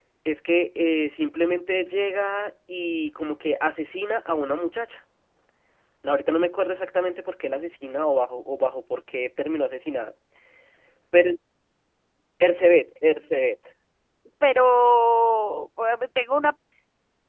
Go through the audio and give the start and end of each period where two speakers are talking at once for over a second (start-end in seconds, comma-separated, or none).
none